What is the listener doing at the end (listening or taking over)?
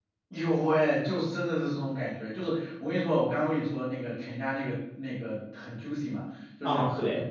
listening